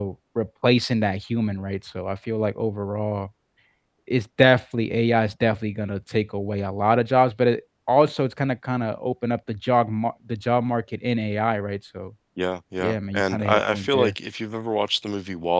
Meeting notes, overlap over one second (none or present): present